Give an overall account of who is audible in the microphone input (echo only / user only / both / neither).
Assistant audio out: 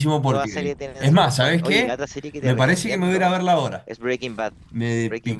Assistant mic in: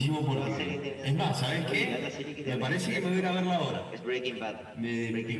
echo only